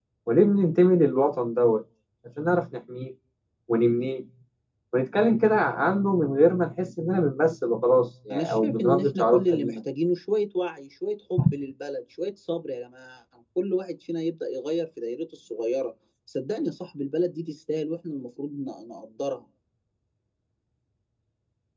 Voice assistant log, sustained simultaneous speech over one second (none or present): present